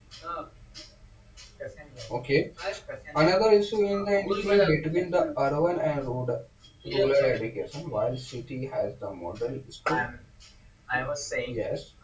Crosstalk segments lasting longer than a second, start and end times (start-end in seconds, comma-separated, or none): 3.9-5.3